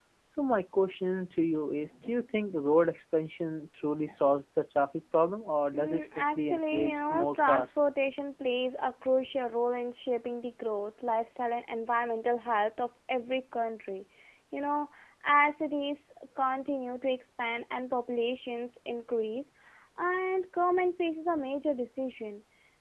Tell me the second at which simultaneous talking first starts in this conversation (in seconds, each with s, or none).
5.7 s